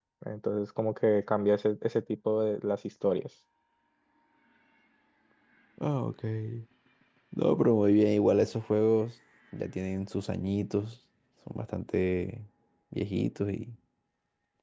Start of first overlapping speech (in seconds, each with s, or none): none